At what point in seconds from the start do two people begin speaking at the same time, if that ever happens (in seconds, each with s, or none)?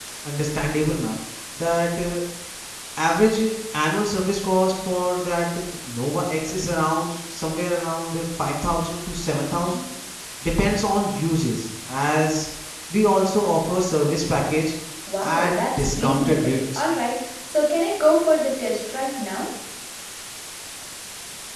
15.3 s